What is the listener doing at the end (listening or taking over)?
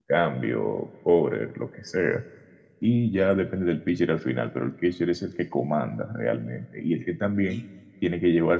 listening